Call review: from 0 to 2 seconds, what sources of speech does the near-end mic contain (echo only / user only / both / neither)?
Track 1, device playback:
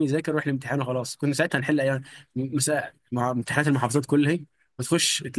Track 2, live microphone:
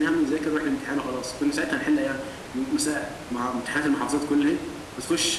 echo only